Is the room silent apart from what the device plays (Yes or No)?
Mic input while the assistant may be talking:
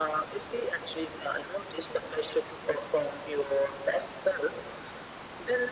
Yes